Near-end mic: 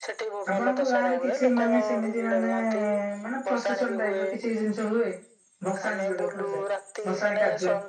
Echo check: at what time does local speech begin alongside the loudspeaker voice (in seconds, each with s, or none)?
0.5 s